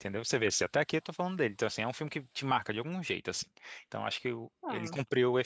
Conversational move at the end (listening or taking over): listening